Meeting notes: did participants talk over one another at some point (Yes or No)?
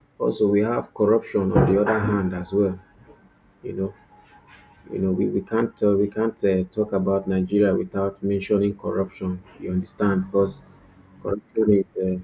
No